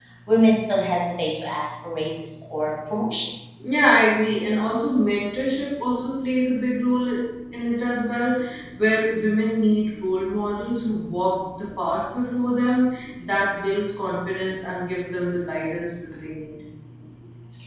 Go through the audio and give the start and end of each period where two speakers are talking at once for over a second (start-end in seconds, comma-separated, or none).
none